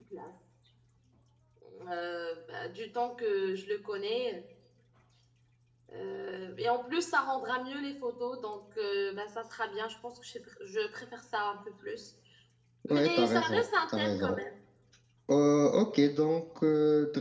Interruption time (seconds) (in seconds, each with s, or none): 12.9 s